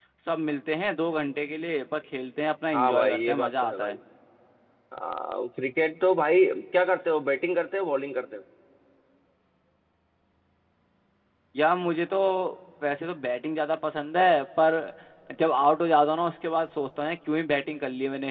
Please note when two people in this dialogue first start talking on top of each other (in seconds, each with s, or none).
2.7 s